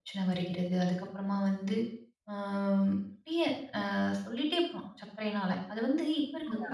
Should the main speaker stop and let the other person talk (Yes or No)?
Yes